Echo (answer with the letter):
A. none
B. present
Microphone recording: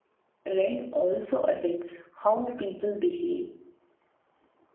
A